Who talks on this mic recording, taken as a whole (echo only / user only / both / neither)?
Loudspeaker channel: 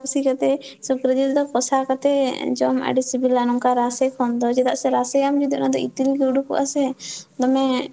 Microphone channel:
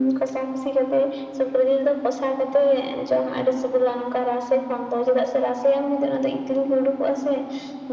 echo only